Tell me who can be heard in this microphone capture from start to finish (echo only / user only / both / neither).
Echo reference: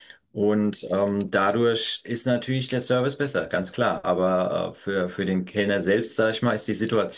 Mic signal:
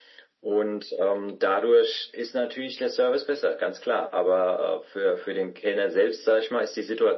echo only